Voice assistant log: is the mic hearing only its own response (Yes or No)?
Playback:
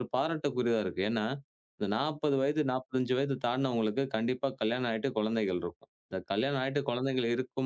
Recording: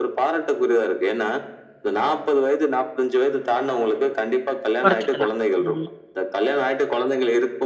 No